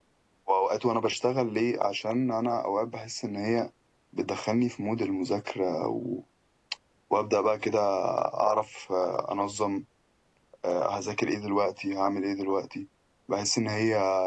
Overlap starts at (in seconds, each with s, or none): none